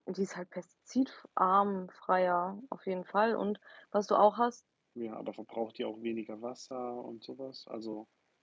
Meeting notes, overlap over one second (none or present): none